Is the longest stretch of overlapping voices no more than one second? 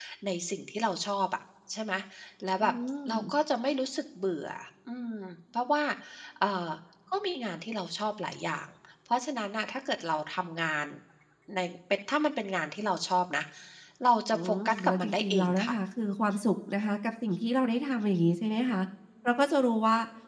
No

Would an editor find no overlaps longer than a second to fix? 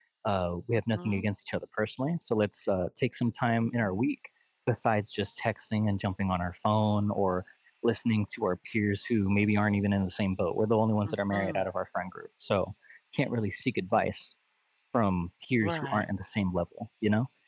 Yes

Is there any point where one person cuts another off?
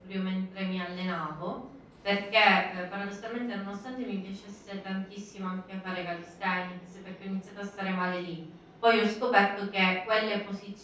No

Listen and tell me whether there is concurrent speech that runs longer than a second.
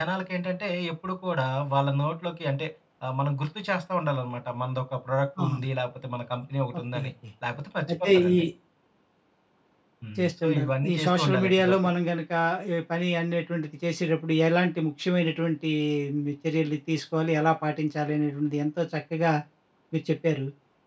Yes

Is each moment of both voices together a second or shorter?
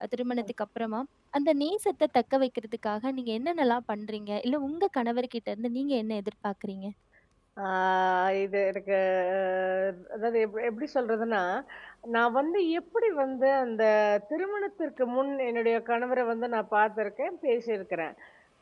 Yes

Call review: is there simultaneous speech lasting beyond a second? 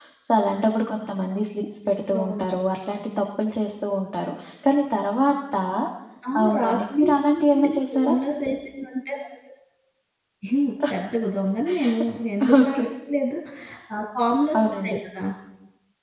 Yes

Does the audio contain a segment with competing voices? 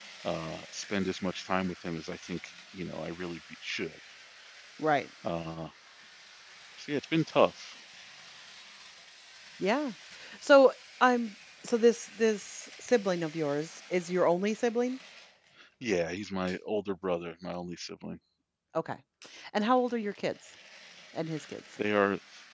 No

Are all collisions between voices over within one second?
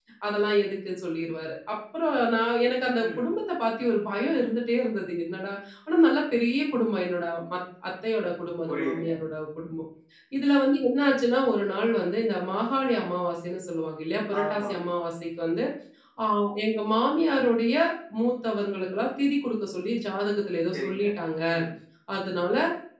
Yes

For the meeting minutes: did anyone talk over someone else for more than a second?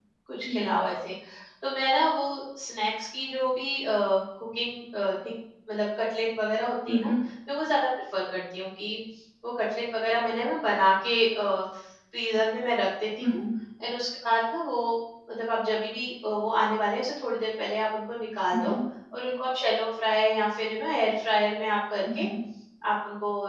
No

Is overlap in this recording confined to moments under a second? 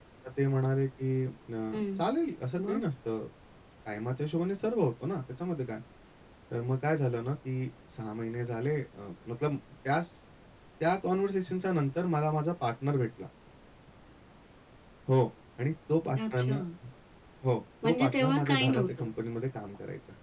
No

